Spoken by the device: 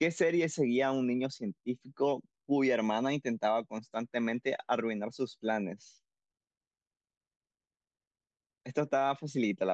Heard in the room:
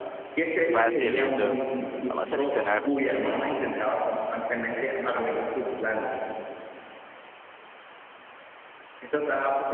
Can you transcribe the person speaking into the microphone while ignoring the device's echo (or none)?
facilito. Vamos a seleccionar.